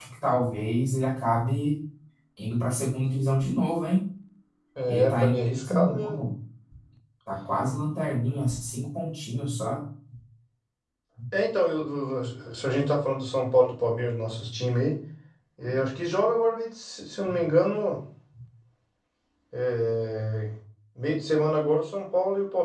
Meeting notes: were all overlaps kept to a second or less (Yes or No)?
No